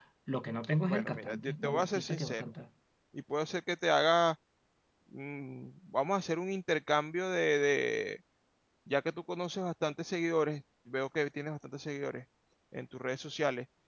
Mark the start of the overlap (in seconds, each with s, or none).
0.9 s